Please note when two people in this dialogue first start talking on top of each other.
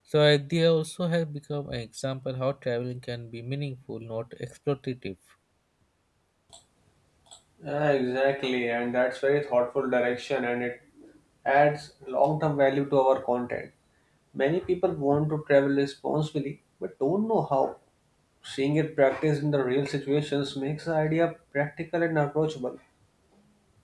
none

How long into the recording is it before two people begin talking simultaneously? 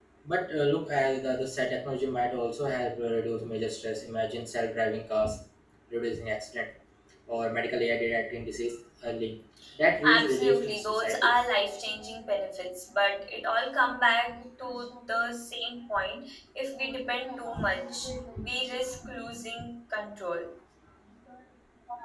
10.1 s

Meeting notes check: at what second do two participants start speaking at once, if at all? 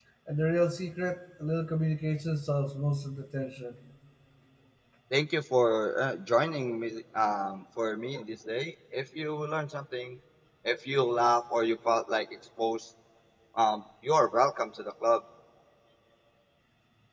none

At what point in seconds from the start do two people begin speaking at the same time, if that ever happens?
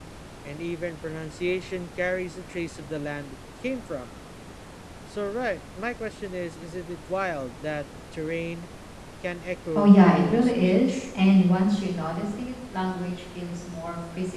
9.8 s

